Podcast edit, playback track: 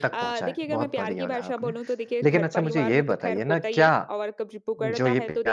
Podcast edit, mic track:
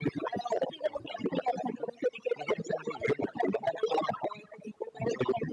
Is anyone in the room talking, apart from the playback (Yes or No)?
No